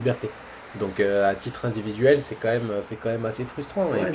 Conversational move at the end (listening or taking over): taking over